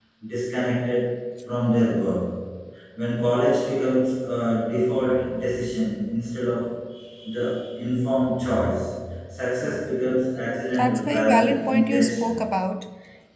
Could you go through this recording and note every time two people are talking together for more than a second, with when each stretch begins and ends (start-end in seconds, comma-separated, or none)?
10.8-12.4